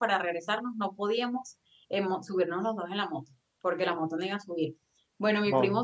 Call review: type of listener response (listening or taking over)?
listening